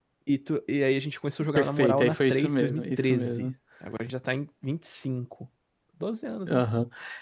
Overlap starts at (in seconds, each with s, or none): 1.6 s